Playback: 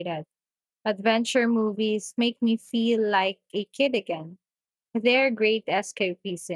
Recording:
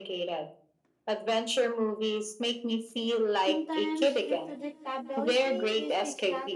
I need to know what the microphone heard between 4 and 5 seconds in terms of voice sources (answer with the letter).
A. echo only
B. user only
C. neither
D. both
D